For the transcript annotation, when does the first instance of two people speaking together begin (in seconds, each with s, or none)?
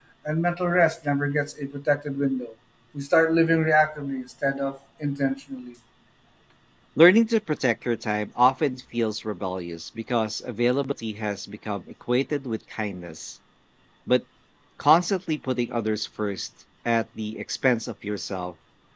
none